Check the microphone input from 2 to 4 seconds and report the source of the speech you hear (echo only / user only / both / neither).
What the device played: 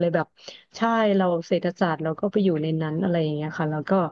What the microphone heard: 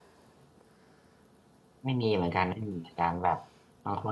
user only